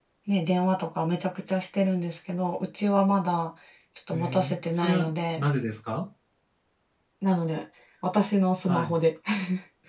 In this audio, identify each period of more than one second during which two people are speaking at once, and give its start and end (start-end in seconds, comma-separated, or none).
4.1-5.4